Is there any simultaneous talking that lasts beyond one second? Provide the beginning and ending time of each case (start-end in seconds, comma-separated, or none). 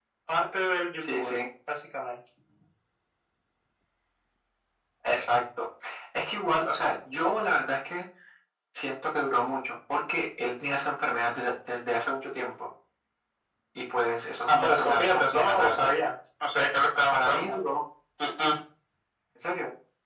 14.5-15.9